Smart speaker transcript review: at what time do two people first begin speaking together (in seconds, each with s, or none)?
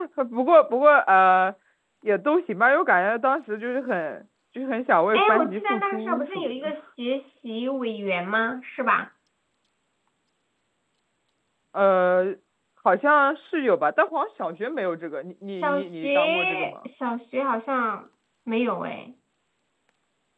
5.1 s